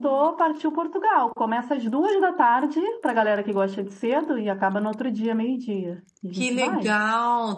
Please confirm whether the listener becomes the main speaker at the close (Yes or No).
Yes